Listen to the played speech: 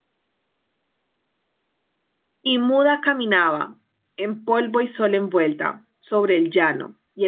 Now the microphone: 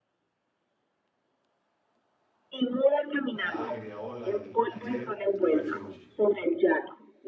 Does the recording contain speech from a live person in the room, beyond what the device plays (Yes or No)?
Yes